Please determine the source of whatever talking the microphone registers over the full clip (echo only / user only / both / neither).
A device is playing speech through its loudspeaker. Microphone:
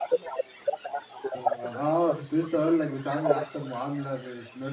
both